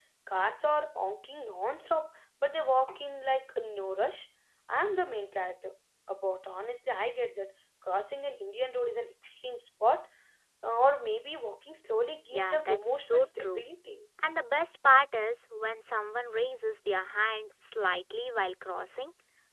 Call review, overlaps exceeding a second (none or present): present